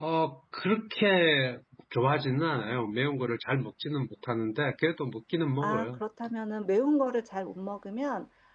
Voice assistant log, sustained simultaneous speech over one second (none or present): none